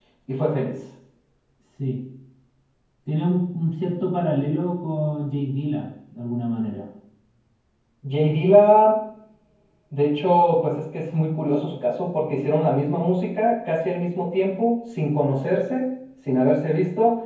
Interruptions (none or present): none